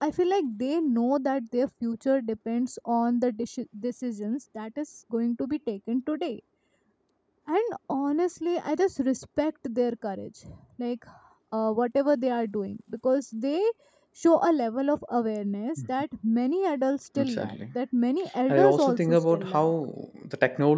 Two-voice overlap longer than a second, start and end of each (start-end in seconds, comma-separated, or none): 18.5-19.7